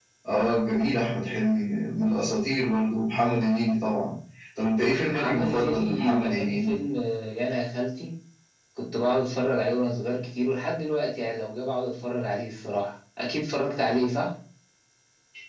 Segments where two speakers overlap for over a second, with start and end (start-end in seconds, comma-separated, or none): 5.1-6.8